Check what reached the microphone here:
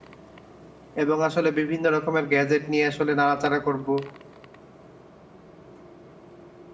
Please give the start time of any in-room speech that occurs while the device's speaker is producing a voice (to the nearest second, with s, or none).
1 s